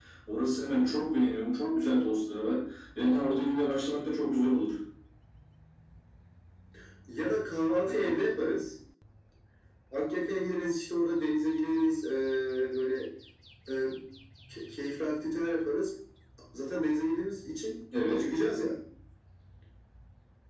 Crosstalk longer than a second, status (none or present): none